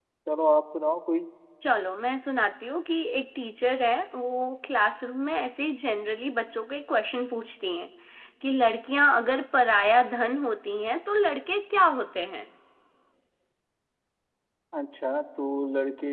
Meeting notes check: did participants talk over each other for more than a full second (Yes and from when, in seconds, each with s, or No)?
No